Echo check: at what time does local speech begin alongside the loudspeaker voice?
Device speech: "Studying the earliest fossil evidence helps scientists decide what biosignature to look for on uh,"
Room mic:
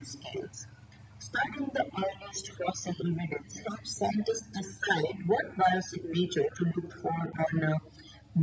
none

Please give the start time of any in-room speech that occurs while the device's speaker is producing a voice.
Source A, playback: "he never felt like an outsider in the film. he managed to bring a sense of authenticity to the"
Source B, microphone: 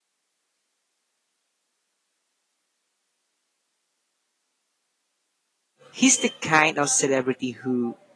5.9 s

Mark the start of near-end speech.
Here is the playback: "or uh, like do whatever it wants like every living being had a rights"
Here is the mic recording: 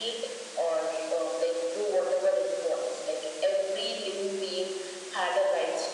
none

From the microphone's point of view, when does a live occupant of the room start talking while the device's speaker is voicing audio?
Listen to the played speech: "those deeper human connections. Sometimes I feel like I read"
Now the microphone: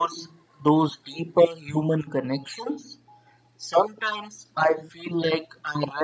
none

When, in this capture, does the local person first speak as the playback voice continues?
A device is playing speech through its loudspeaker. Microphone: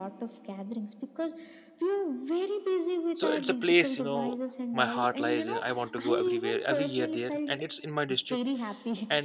3.1 s

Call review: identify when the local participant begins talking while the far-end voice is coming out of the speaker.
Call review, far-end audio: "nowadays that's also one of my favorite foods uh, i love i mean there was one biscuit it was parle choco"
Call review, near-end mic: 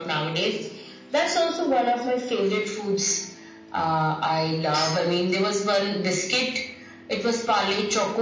none

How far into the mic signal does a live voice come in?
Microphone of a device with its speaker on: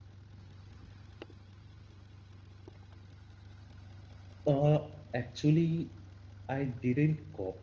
4.5 s

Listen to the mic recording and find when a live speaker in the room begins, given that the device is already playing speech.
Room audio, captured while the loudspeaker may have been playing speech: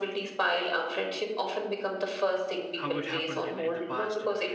2.8 s

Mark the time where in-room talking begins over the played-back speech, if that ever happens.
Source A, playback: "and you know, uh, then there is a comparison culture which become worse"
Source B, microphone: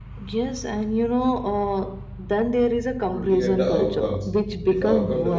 3.1 s

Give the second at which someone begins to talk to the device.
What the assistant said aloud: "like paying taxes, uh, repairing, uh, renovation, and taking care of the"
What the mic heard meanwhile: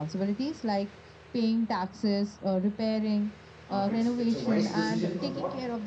3.7 s

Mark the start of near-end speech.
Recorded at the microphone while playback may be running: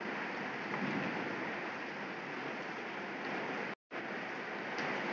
none

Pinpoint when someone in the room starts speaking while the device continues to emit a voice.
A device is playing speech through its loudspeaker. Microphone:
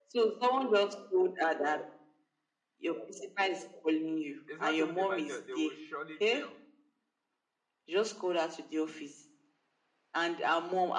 4.5 s

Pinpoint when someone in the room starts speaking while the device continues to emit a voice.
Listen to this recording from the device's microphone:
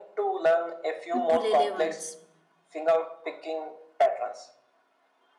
1.2 s

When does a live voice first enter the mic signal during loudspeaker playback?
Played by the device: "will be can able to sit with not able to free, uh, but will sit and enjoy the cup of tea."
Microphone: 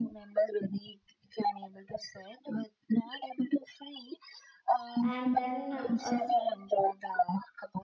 5.0 s

